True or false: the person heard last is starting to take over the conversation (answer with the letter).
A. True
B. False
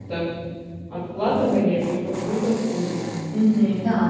A